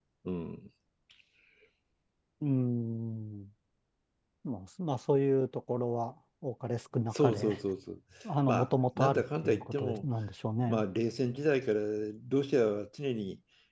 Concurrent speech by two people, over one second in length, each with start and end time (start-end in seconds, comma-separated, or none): 8.5-10.1